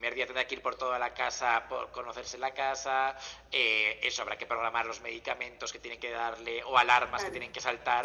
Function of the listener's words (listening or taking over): listening